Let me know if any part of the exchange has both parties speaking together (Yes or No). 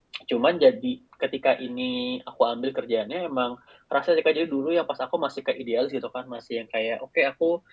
No